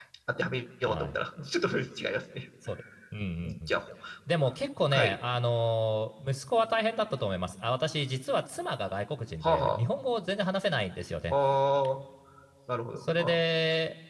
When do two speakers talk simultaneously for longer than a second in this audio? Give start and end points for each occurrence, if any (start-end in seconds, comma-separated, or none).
none